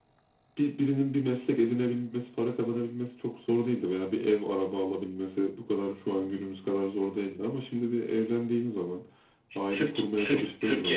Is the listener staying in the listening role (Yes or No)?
No